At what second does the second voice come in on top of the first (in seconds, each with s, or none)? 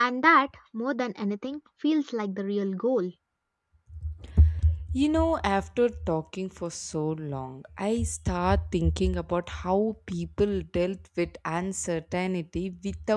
none